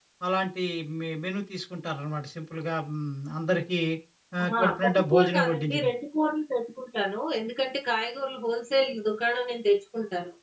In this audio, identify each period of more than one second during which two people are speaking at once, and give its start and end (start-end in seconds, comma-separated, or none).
4.4-5.9